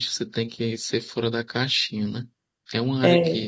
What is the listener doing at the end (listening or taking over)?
listening